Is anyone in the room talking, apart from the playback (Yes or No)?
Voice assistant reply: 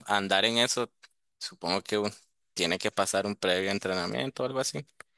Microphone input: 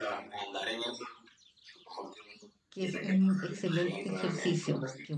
Yes